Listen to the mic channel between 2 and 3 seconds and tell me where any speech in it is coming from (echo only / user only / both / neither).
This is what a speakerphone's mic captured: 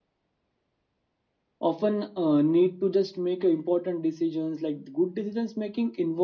user only